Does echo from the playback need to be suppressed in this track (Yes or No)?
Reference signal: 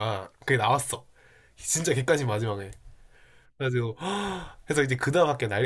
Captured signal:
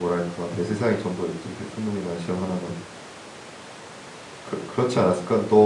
No